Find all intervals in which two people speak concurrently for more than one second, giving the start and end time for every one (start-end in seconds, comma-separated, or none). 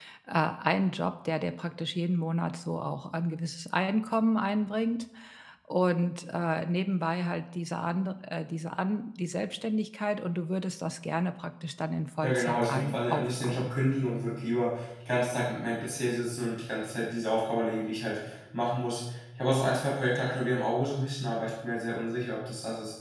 12.2-13.8